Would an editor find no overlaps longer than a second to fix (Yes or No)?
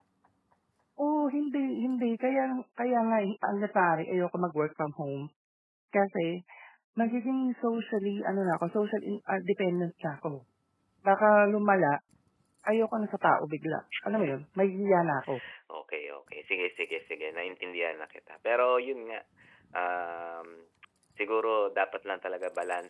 Yes